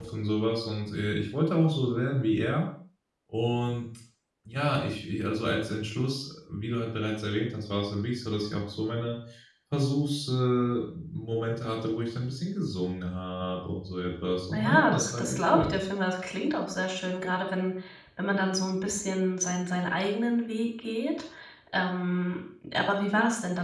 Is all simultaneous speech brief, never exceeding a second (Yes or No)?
No